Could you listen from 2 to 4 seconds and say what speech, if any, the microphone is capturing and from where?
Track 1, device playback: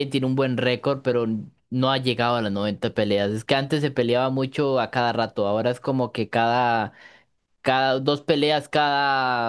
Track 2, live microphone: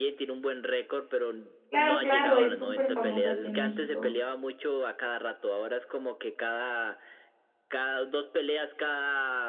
both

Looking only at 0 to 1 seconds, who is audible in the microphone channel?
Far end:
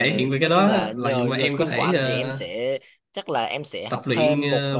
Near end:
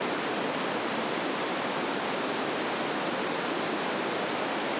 neither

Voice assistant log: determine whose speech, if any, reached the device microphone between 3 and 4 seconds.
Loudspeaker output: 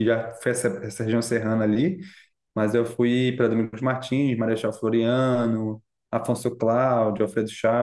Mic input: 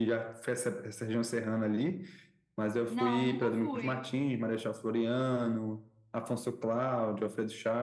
both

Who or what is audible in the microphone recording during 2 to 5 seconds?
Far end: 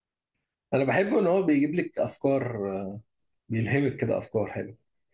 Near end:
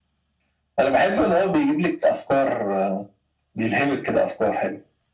echo only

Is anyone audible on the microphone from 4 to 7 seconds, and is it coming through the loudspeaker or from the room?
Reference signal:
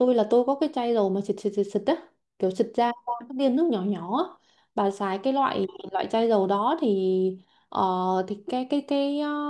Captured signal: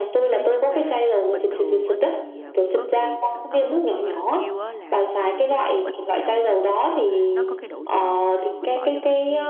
both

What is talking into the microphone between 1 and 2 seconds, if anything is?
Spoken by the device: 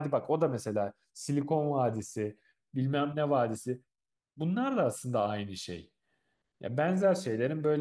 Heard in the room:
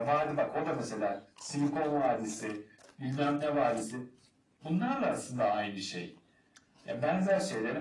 echo only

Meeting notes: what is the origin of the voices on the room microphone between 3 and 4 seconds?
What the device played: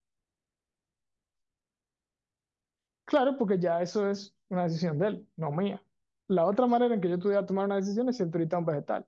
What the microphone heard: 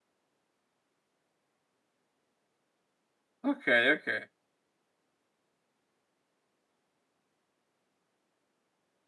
user only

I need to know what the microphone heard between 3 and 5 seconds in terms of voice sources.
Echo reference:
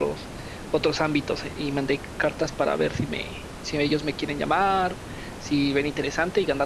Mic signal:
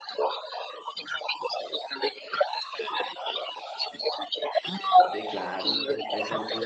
echo only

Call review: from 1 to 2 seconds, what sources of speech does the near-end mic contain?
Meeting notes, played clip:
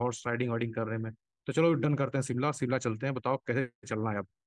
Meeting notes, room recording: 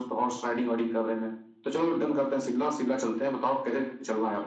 echo only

